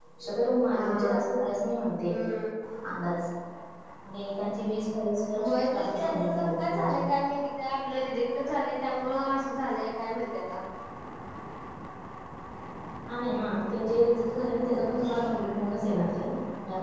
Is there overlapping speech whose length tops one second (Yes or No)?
Yes